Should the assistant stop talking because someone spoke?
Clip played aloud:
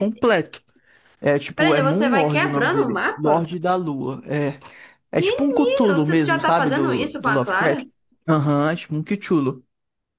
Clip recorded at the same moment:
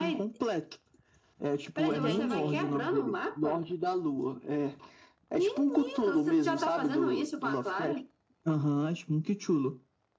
Yes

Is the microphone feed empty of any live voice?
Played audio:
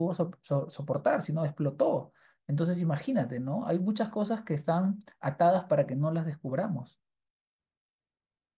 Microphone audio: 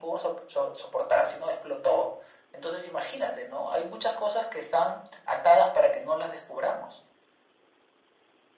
Yes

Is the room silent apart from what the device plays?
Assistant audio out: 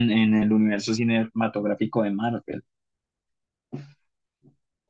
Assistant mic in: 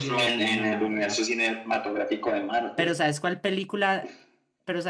No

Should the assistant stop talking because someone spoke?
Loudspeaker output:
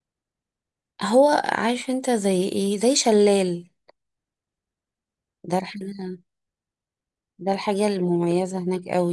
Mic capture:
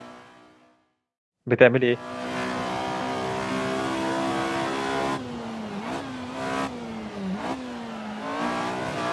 Yes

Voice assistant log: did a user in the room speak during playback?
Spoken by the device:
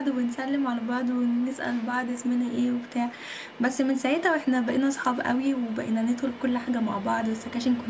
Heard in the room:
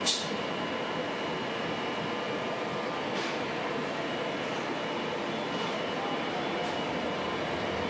No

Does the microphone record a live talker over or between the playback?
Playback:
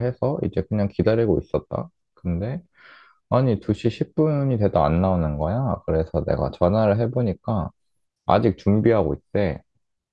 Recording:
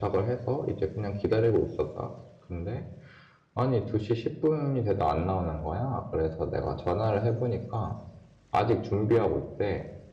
No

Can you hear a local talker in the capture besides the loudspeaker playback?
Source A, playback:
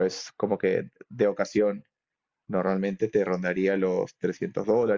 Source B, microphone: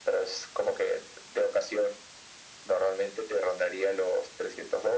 No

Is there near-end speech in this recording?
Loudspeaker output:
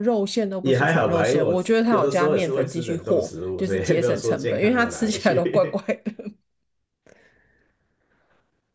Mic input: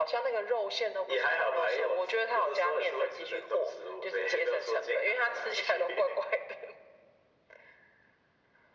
No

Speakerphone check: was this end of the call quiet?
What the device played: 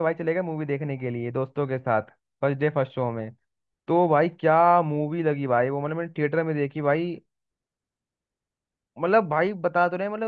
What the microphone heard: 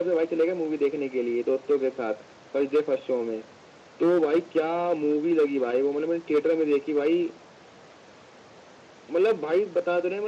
Yes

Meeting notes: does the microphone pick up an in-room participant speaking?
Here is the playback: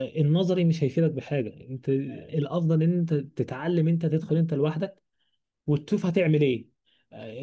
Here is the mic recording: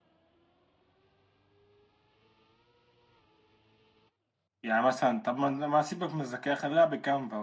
Yes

